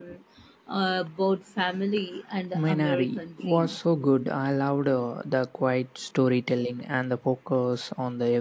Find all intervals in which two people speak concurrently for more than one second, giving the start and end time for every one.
2.5-3.8

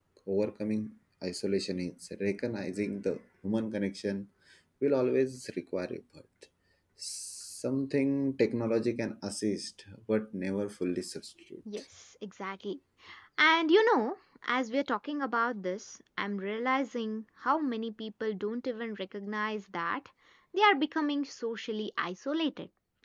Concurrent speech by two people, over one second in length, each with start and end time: none

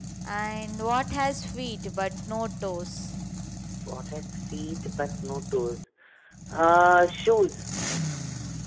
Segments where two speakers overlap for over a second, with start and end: none

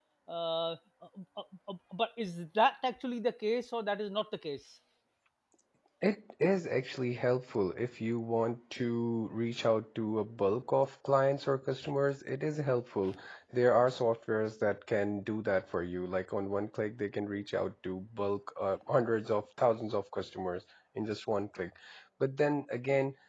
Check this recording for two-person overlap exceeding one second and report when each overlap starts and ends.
none

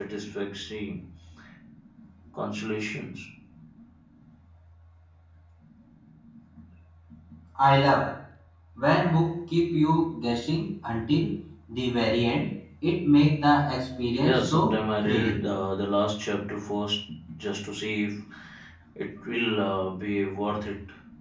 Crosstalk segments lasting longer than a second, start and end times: 14.2-15.5

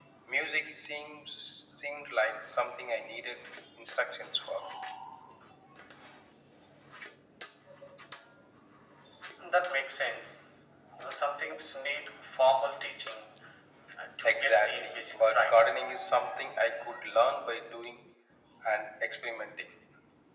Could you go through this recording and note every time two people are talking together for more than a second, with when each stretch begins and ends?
14.2-15.6

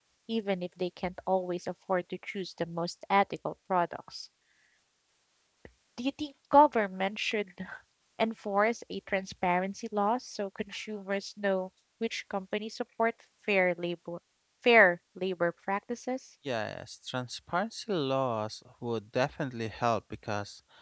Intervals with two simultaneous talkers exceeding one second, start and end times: none

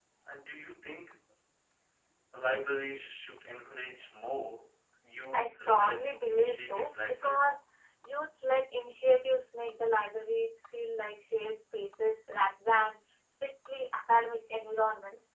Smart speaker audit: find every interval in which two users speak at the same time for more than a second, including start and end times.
5.3-7.4

